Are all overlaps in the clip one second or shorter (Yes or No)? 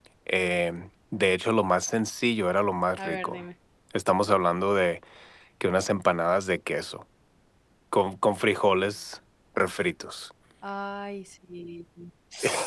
Yes